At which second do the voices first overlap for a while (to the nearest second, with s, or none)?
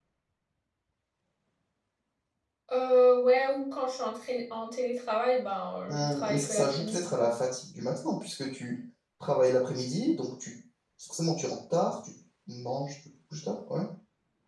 6 s